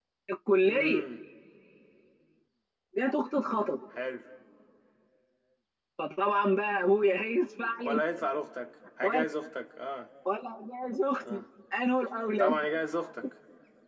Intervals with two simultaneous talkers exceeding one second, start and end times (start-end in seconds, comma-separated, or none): none